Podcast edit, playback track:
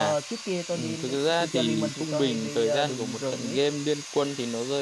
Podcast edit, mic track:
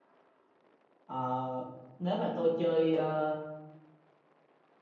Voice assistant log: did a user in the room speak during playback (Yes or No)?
Yes